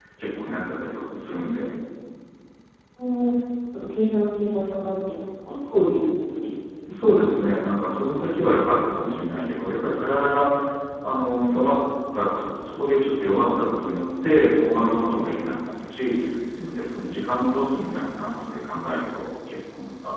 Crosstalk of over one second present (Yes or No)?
No